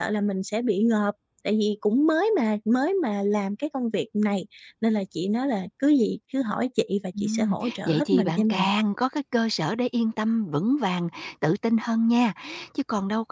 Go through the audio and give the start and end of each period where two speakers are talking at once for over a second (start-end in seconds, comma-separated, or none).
7.2-8.7